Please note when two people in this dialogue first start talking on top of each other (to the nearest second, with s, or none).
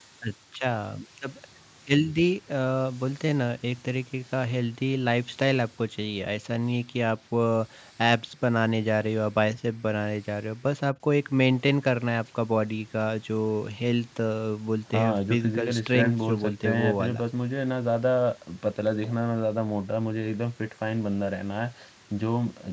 15 s